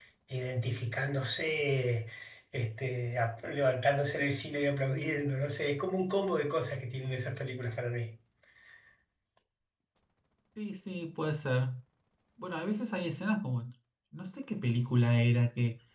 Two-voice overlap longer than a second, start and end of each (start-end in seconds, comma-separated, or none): none